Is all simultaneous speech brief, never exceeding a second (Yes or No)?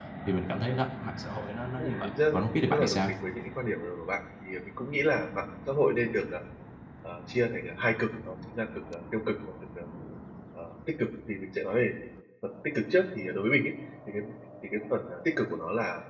No